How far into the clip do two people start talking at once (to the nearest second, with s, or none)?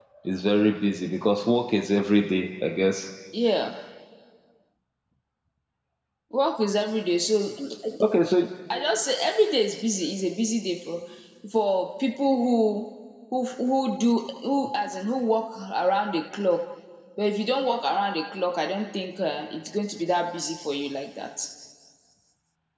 none